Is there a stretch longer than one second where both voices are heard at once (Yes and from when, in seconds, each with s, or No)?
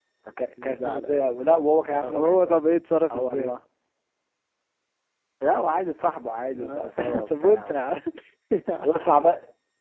Yes, from 0.6 s